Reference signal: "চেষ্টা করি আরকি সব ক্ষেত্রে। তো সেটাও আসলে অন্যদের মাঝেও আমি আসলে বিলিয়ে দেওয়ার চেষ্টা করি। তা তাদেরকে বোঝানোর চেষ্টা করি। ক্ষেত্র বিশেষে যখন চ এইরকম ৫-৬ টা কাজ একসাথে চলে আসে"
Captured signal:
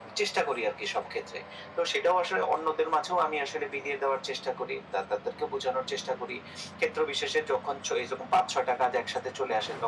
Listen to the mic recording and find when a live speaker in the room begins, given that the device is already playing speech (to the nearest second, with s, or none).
none